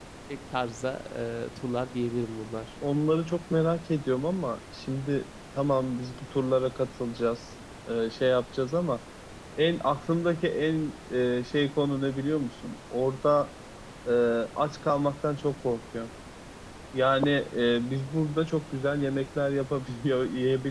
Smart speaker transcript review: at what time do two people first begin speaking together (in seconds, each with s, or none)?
none